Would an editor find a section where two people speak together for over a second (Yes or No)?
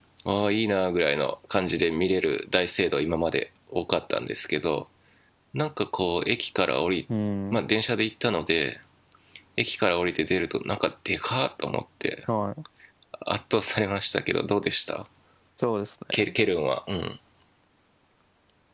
No